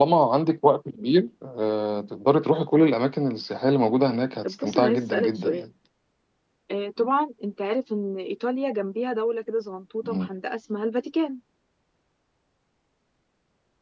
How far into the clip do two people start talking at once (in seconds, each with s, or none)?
4.4 s